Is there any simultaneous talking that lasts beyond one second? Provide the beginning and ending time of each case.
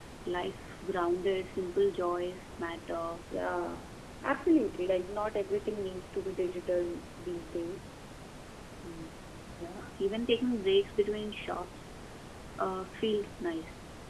none

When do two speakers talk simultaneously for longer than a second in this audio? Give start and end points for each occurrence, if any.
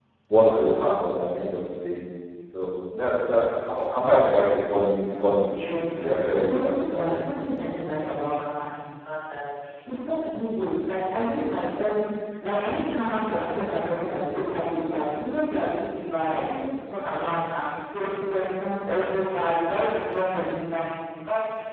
5.6-7.2

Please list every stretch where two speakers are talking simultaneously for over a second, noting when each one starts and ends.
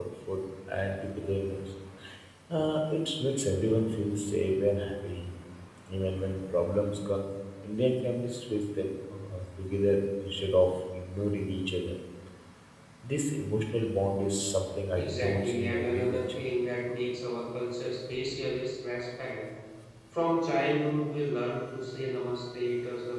14.9-16.4

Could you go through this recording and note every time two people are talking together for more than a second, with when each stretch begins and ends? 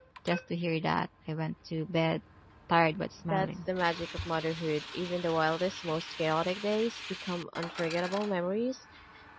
none

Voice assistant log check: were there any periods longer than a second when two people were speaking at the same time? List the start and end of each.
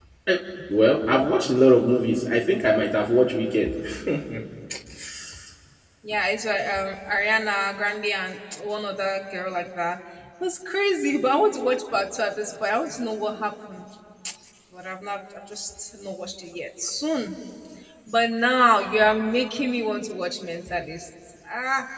none

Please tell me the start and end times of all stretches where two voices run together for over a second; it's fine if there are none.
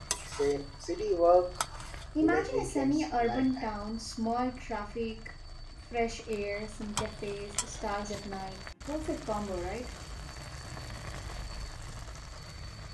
2.2-3.9

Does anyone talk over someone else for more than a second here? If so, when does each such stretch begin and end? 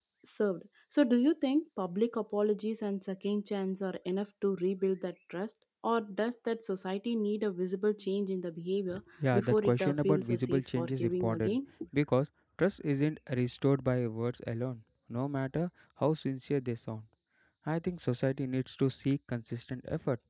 9.3-11.6

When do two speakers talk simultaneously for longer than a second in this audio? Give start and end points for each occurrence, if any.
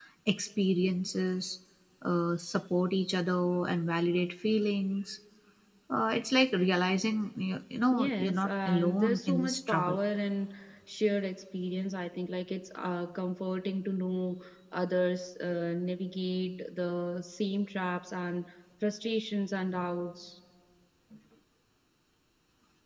7.9-10.0

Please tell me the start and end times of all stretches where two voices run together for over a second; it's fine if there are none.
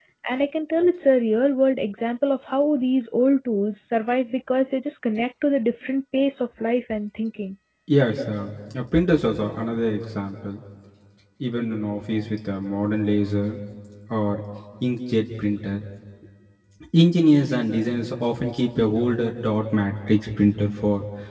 none

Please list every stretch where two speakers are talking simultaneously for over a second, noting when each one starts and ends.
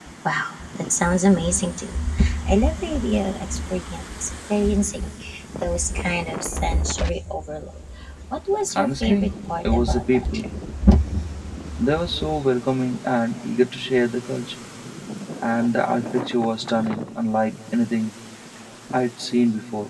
8.7-10.5

